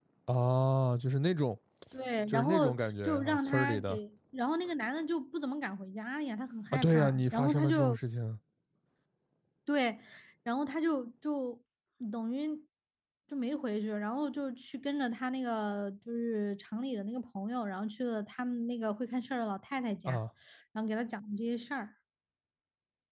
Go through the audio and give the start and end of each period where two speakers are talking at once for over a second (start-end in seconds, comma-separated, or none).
2.3-4.0, 6.7-8.0